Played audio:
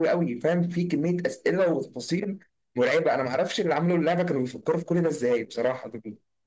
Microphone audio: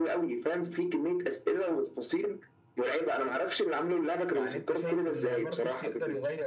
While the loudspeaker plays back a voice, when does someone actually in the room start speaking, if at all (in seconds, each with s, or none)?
4.3 s